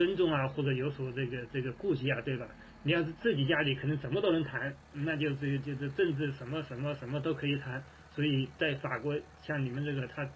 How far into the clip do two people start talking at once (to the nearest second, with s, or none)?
none